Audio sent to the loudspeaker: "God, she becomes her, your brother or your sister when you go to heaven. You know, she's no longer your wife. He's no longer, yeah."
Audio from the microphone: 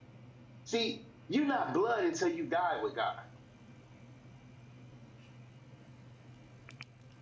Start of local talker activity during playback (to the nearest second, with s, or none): 1 s